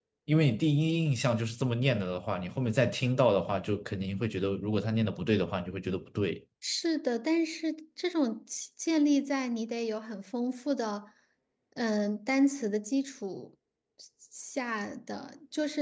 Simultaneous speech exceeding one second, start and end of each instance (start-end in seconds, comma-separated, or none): none